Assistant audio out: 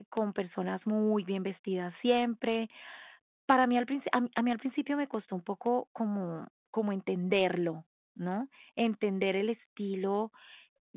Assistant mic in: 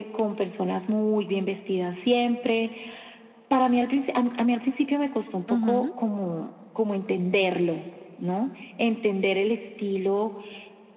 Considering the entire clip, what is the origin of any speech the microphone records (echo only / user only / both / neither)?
both